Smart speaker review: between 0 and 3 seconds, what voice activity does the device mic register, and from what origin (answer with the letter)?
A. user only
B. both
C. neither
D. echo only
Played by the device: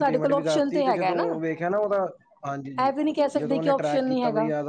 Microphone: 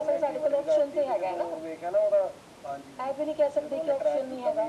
D